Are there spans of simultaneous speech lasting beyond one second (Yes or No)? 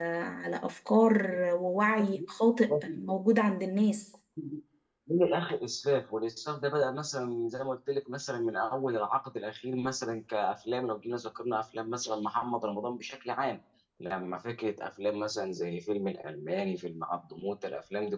No